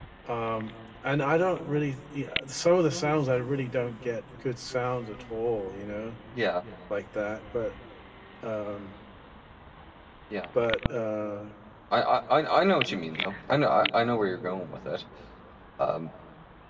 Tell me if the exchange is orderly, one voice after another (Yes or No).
Yes